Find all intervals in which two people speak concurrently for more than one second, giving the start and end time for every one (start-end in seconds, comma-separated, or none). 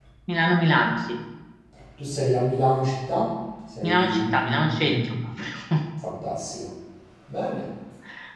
3.8-5.0